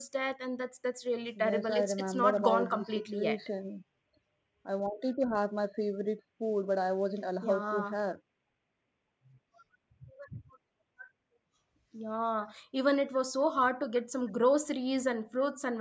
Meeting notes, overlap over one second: present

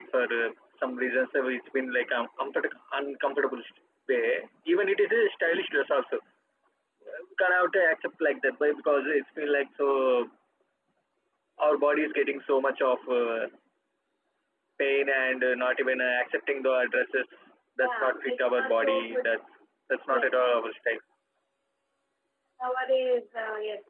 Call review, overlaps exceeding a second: present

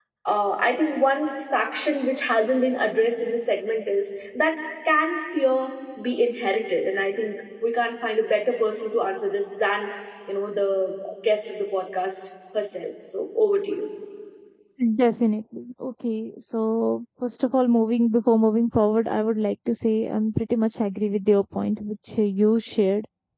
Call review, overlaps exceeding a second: none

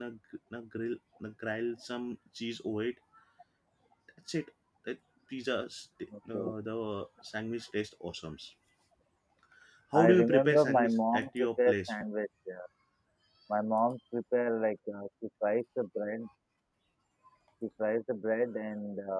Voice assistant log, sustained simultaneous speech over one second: present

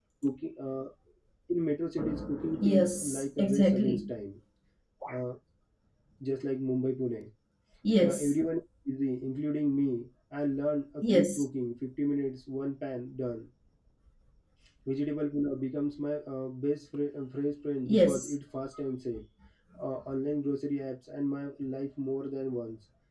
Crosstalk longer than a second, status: present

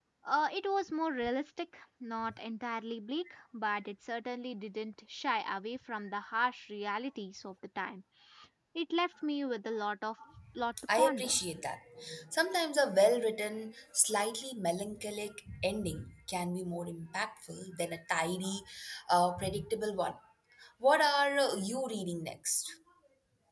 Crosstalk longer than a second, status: none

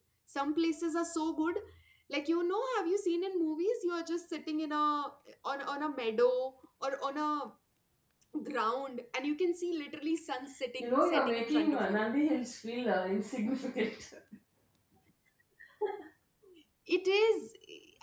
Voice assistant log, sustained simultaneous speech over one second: present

